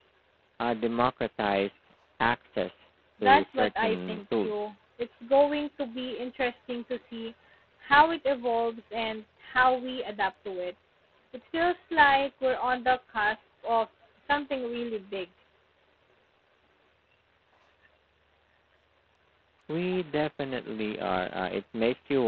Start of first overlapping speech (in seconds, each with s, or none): 3.2 s